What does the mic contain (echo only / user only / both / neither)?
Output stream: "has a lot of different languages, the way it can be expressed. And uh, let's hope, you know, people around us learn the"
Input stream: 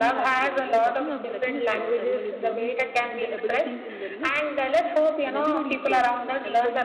both